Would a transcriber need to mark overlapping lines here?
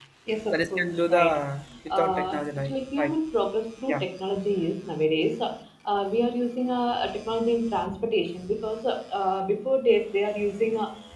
Yes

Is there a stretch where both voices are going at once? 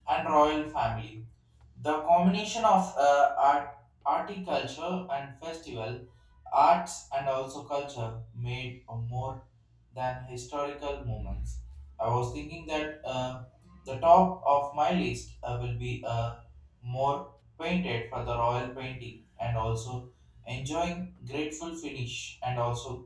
No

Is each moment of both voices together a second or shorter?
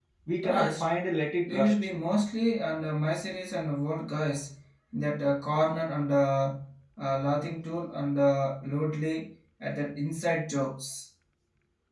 Yes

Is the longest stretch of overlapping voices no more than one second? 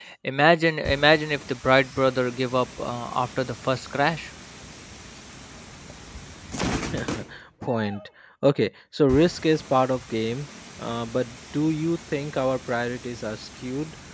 Yes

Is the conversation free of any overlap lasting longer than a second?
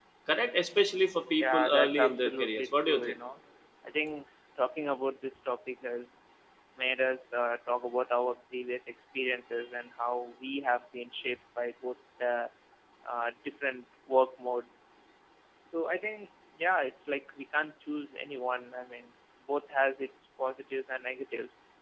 No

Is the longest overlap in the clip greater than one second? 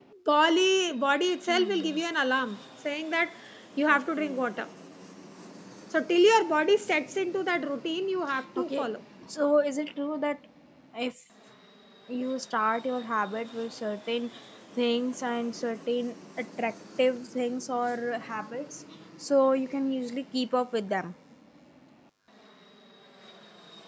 No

